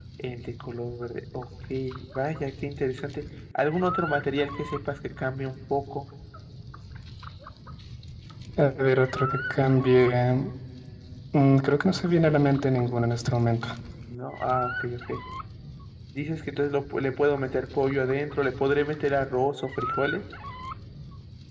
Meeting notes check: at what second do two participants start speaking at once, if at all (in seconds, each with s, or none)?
none